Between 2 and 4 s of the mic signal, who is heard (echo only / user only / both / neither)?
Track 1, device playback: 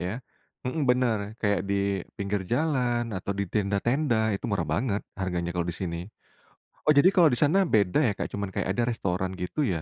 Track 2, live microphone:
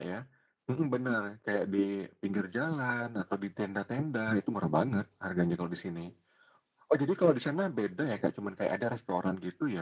echo only